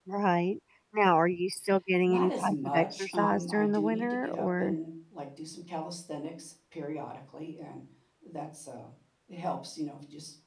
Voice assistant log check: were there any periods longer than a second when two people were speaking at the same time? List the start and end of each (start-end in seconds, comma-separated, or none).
2.1-4.8